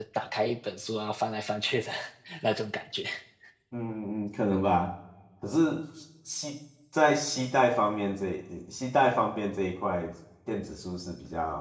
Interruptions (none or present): none